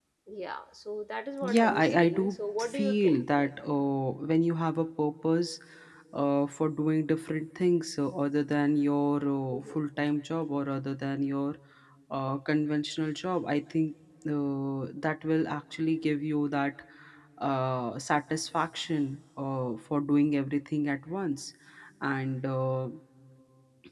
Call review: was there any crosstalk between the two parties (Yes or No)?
Yes